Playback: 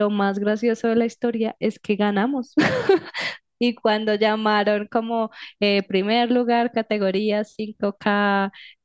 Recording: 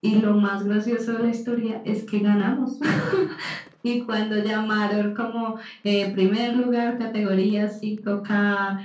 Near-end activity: none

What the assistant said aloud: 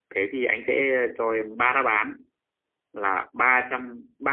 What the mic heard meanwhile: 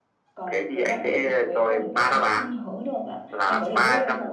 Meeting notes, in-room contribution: present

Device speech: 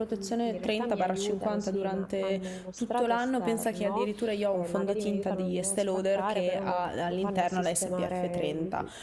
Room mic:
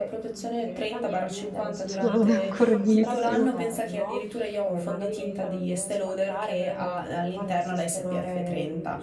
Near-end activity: present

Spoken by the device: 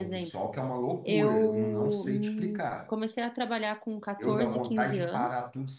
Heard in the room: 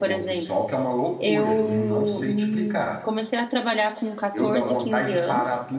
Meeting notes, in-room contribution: none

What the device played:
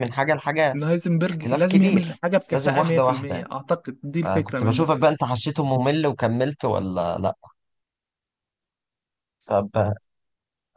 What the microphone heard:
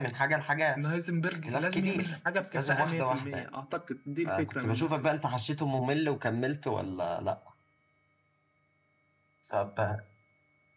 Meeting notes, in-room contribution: none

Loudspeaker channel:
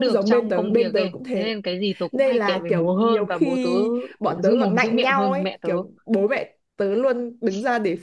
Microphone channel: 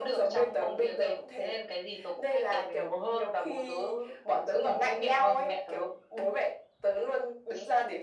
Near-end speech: none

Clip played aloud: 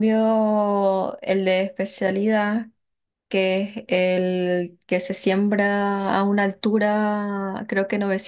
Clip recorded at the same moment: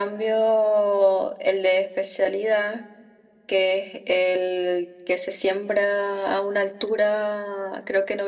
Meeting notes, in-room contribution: none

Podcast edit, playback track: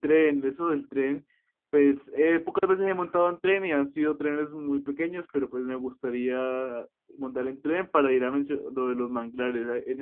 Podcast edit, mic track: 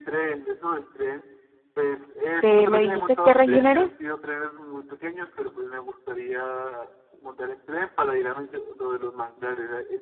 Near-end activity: present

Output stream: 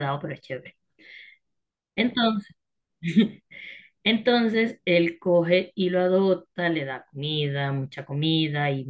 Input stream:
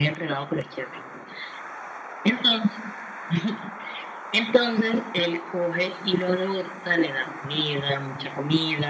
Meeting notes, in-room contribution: none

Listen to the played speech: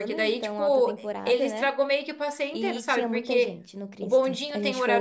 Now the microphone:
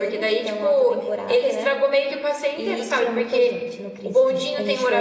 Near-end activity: none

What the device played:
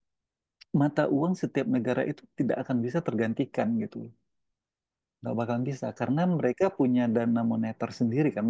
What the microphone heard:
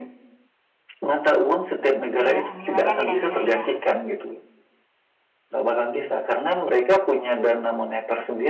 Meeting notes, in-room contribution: present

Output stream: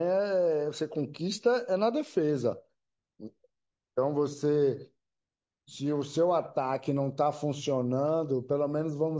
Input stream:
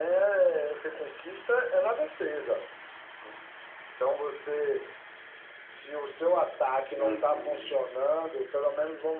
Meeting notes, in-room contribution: present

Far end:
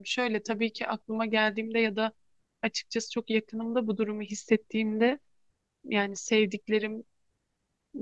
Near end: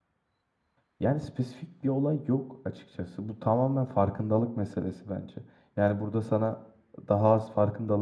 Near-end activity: present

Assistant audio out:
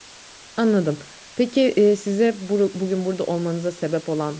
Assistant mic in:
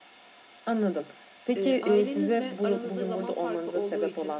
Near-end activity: present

